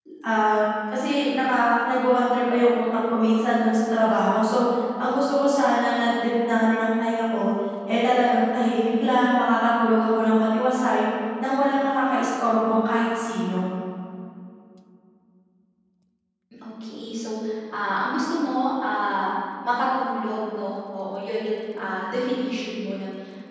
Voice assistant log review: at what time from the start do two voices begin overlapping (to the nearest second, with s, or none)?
none